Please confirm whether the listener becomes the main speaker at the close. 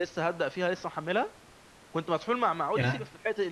No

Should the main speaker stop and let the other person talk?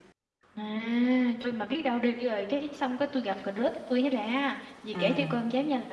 No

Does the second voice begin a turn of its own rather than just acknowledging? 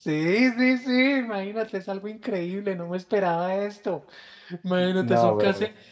No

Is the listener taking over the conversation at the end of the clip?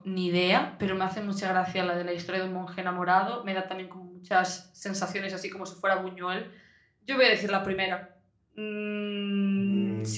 Yes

